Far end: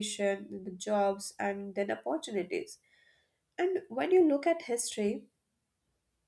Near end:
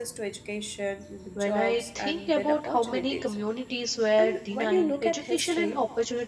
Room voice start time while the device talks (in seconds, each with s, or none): 1.3 s